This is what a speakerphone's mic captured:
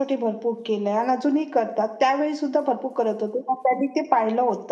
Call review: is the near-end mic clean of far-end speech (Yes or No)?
No